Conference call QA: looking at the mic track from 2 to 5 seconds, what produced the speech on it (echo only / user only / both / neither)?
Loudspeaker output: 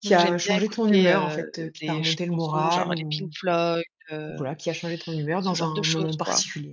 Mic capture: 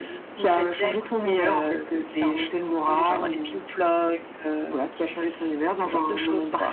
echo only